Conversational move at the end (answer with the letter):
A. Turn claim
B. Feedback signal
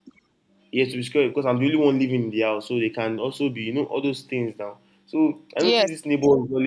B